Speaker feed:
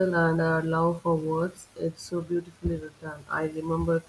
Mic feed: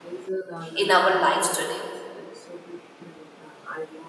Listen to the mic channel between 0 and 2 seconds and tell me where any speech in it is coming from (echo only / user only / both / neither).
both